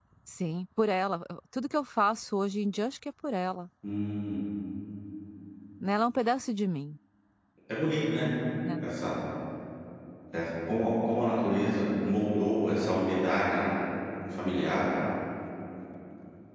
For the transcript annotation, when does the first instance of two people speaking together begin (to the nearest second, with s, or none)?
none